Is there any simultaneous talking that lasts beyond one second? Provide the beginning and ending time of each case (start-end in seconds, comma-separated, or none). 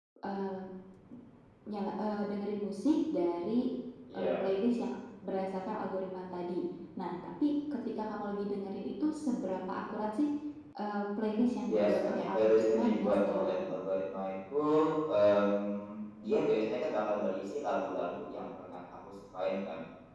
11.6-13.7